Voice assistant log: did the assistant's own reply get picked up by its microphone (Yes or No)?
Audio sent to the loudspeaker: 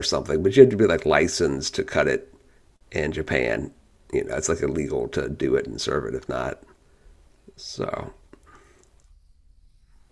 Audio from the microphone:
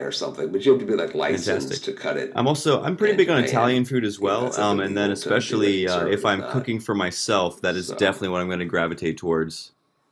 Yes